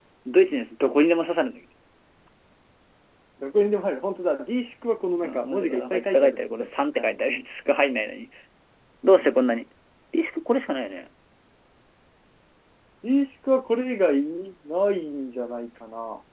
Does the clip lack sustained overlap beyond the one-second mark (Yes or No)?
No